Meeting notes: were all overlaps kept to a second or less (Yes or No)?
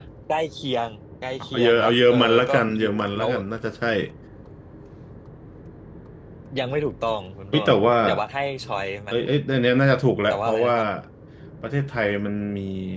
No